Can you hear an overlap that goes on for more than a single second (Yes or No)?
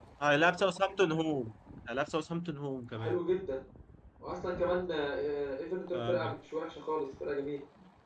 No